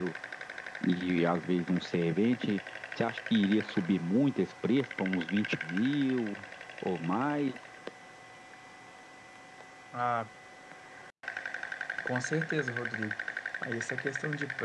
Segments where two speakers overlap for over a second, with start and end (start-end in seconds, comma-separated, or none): none